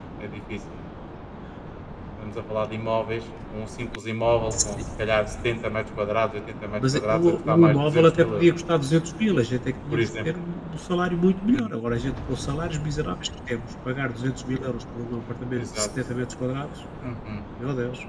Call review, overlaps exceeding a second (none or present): present